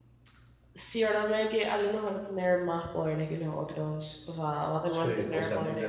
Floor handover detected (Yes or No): Yes